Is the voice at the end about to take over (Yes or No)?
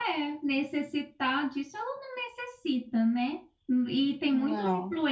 No